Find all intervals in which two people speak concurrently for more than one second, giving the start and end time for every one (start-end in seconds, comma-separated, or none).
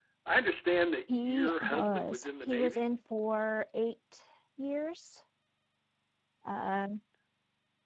1.2-2.9